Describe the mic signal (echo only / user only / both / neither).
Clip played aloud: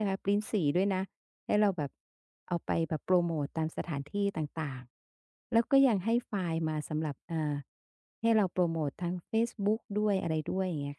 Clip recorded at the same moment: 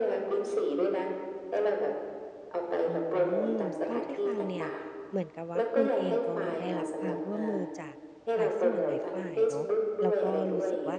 both